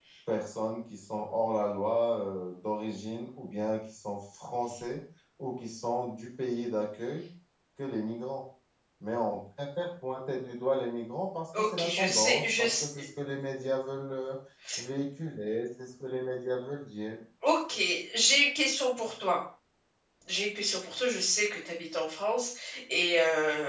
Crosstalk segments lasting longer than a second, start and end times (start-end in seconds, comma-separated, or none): 11.6-12.8